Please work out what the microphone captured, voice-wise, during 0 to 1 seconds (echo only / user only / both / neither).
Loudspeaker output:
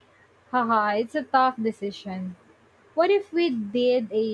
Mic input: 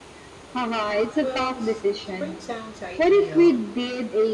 echo only